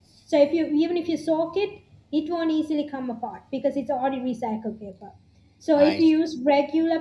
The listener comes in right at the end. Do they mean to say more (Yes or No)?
No